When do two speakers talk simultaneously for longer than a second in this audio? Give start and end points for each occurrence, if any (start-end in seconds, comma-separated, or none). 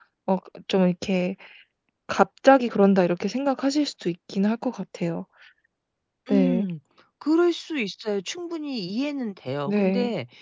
none